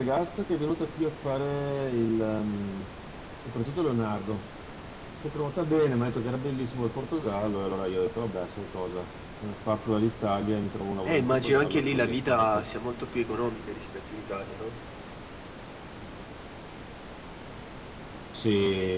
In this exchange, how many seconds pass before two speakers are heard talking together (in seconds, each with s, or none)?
11.1 s